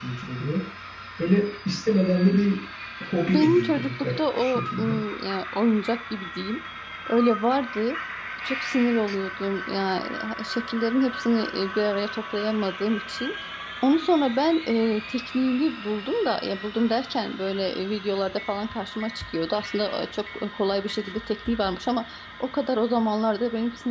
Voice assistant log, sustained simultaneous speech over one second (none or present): present